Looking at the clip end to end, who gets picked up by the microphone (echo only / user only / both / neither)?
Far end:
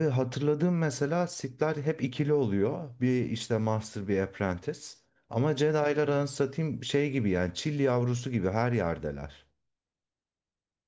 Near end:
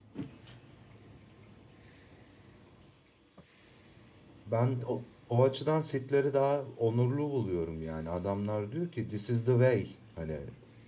user only